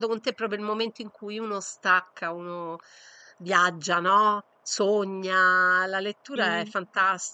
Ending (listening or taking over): listening